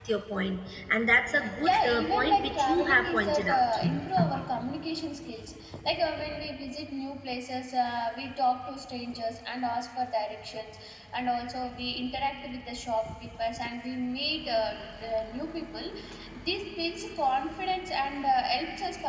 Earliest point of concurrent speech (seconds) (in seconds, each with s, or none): 1.4 s